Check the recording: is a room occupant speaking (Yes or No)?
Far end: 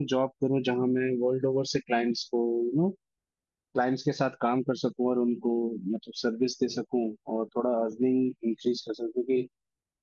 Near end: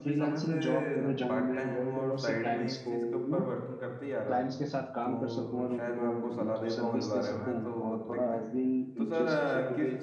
Yes